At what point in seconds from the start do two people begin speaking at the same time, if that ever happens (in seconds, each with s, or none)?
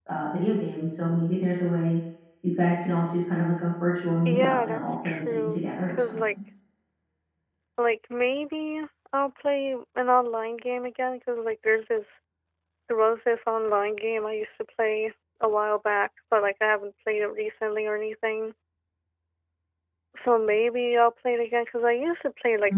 4.2 s